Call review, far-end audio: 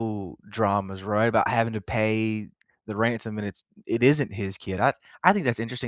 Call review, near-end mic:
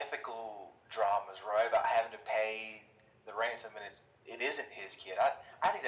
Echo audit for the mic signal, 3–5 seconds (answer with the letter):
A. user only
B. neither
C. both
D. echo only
D